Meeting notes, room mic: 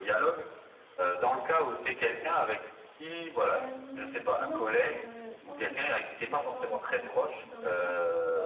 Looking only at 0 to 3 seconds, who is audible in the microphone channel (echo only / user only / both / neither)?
echo only